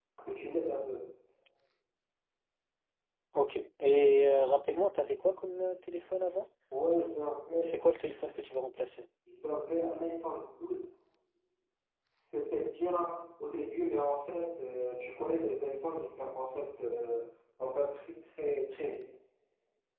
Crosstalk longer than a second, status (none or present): none